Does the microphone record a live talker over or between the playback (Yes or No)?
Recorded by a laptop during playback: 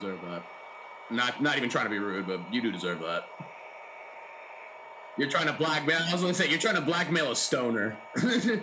No